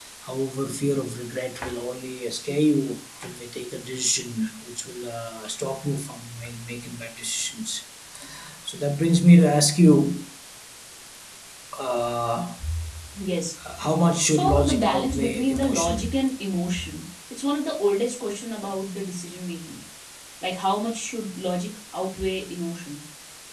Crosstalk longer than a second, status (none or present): present